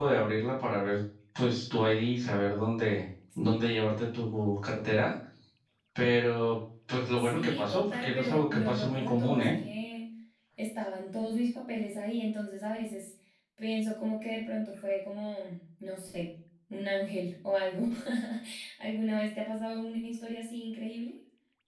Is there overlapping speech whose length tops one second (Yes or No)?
Yes